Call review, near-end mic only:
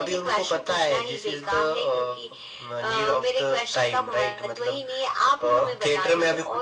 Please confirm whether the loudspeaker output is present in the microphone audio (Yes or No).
Yes